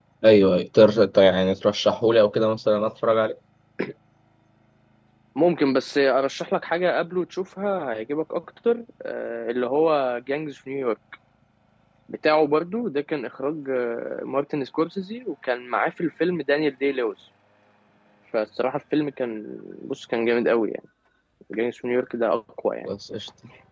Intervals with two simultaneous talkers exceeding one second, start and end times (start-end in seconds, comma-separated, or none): none